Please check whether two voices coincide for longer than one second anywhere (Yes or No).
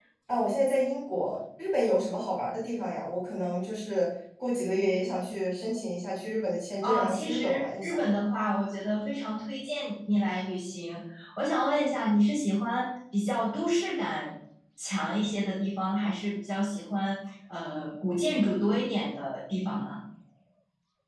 Yes